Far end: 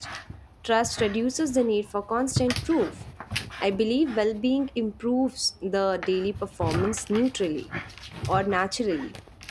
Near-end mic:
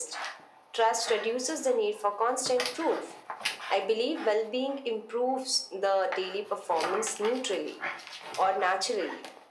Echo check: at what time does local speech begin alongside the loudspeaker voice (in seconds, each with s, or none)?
none